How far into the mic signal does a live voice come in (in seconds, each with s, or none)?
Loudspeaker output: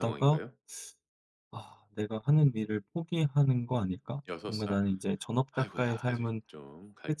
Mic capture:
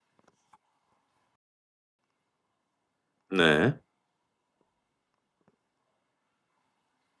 3.3 s